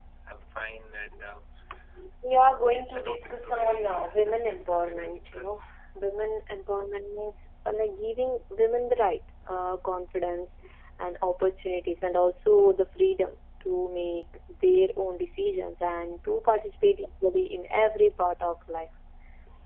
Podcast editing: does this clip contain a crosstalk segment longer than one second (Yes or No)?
Yes